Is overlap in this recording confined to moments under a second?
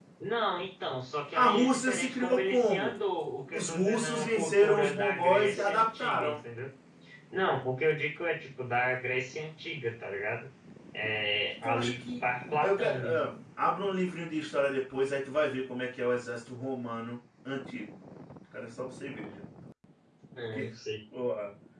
No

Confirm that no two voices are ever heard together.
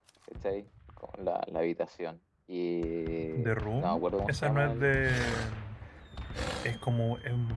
No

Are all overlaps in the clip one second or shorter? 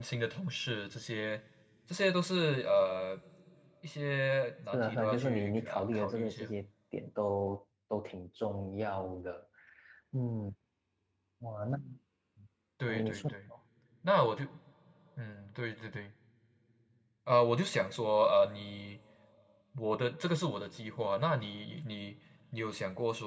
No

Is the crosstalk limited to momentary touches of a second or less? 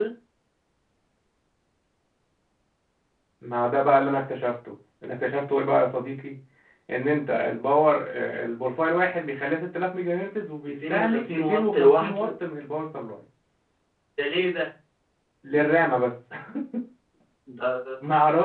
No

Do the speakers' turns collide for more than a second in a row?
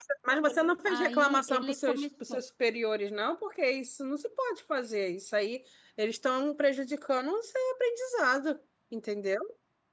Yes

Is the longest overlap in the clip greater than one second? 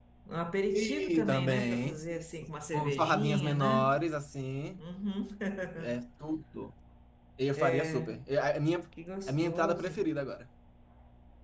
Yes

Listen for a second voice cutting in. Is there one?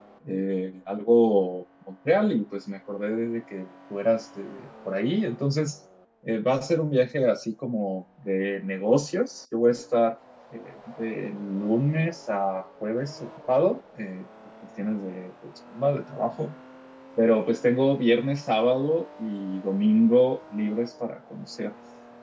No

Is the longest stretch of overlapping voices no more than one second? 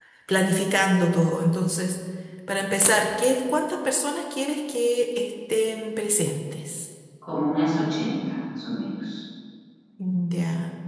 Yes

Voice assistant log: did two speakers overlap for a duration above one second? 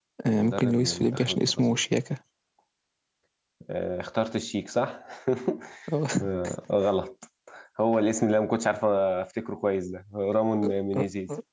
Yes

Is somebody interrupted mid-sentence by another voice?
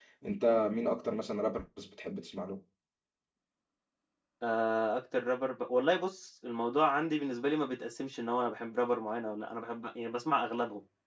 No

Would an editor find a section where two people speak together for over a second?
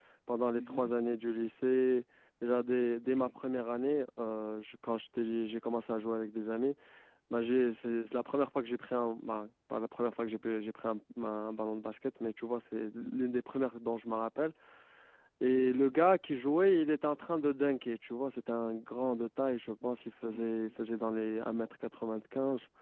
No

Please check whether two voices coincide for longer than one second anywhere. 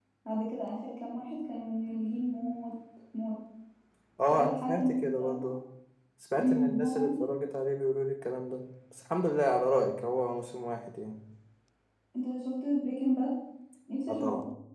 Yes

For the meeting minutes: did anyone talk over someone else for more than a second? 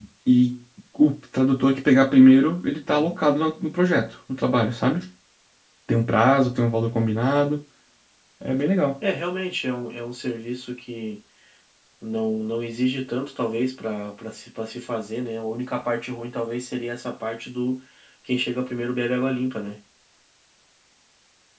No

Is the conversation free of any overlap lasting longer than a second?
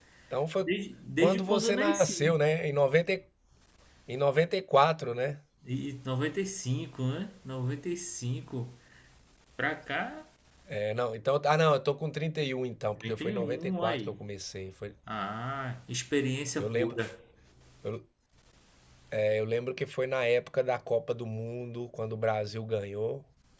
No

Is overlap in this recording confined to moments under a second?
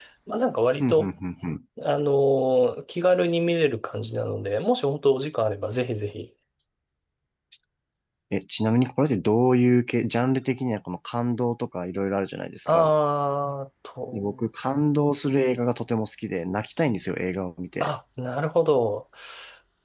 Yes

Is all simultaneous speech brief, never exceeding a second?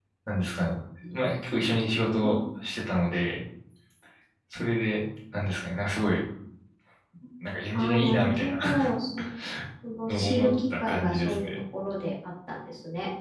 No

